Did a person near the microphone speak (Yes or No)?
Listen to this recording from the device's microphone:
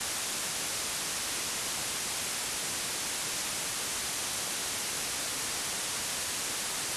No